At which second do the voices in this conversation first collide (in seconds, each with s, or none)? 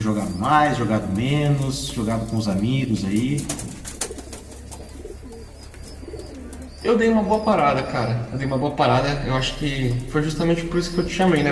none